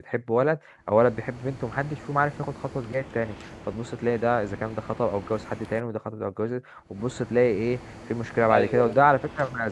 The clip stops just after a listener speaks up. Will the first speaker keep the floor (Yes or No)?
Yes